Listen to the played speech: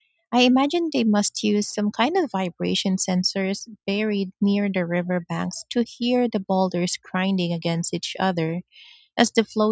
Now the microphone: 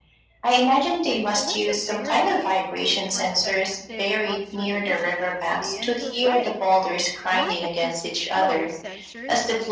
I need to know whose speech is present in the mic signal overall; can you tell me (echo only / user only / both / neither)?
both